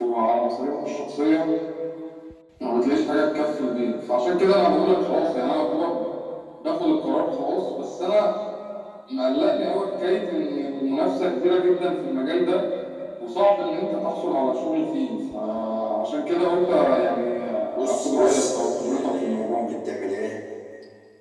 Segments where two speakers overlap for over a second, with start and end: 17.8-19.7

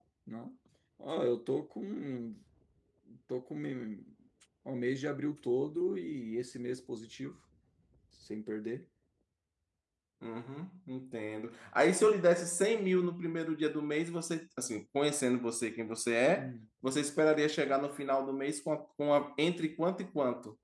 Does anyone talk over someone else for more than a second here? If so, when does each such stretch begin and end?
none

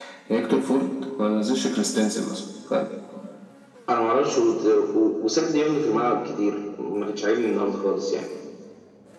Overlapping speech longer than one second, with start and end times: none

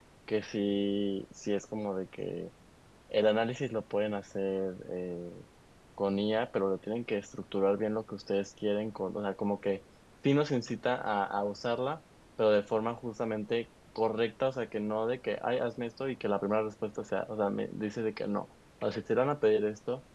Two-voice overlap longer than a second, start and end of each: none

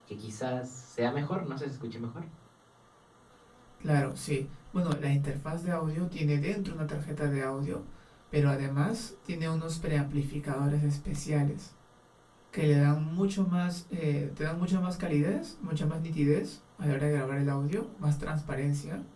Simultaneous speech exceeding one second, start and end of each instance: none

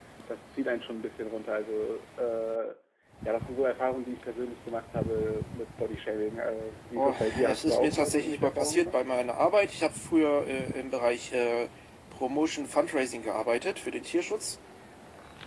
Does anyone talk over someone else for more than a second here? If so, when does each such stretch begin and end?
7.0-8.9

